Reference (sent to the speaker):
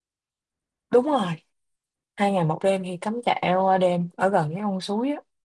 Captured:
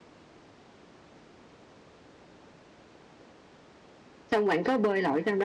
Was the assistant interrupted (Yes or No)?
Yes